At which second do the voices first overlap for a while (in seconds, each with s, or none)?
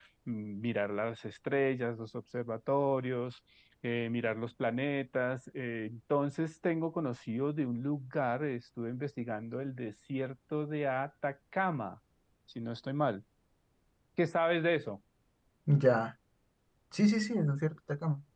none